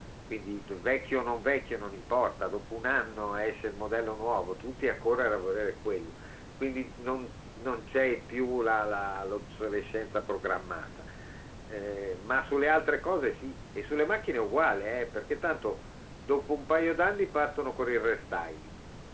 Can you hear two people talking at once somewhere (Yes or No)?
No